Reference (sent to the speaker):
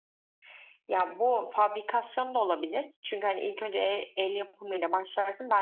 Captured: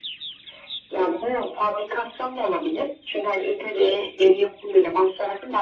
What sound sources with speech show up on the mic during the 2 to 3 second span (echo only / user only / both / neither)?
echo only